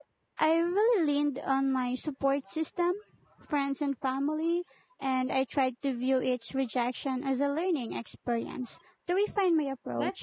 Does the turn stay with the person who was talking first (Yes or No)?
No